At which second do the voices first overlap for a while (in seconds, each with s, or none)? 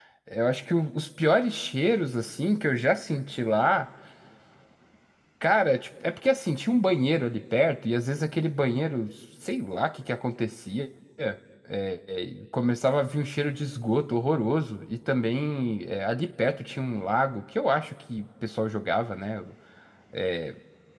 none